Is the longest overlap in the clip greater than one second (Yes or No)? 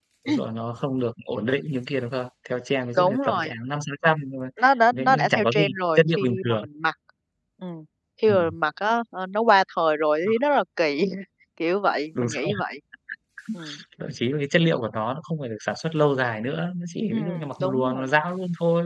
Yes